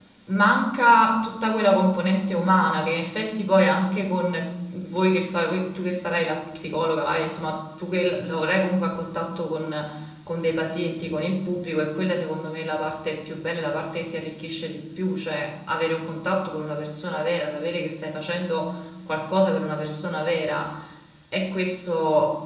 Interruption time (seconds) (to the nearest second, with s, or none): none